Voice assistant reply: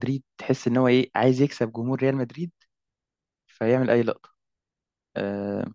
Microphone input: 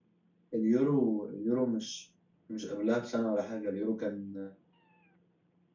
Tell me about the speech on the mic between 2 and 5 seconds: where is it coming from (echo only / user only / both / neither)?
user only